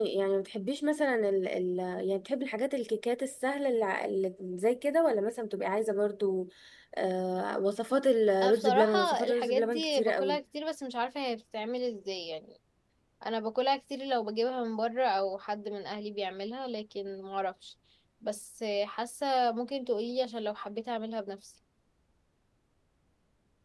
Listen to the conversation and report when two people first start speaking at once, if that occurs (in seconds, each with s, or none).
8.4 s